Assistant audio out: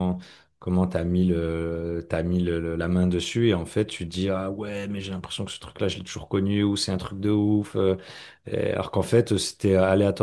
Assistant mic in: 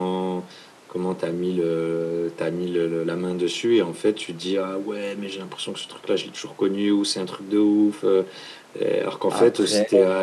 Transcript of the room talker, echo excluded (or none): Après,